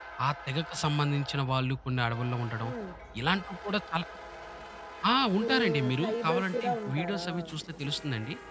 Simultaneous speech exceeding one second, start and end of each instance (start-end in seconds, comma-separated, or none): 5.5-7.3